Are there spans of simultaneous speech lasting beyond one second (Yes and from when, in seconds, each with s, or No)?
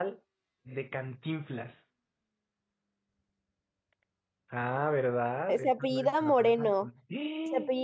Yes, from 5.5 s